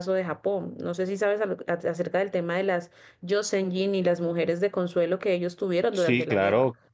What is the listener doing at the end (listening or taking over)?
taking over